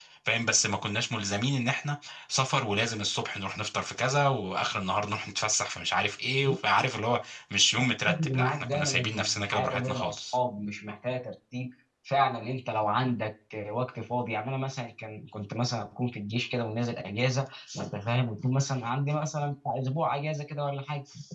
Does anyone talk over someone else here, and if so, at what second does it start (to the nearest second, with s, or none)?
8 s